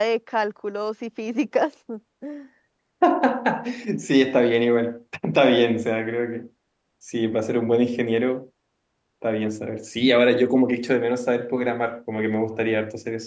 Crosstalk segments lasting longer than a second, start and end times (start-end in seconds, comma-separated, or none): none